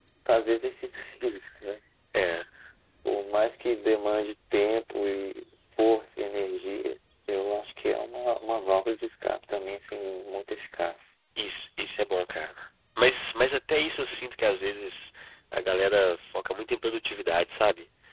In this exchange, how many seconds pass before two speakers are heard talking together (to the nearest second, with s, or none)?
none